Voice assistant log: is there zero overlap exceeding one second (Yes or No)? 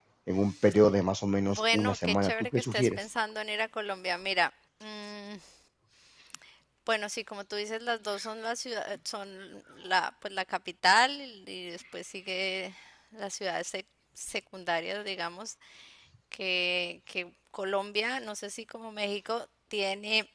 No